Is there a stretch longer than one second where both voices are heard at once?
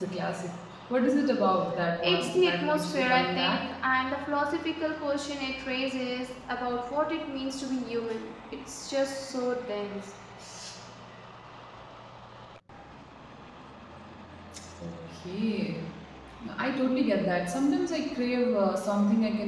Yes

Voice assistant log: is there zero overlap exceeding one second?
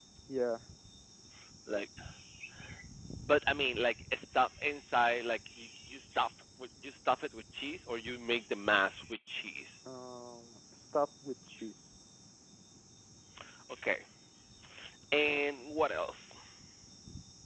Yes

